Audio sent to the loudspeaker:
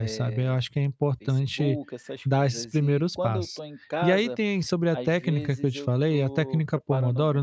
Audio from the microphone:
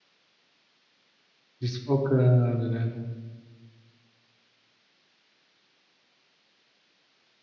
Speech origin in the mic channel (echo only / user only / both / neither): user only